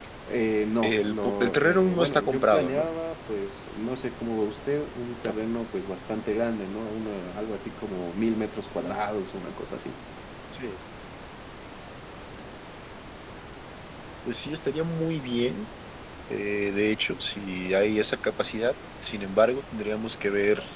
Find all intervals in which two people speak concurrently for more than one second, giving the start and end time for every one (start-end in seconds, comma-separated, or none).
0.8-2.9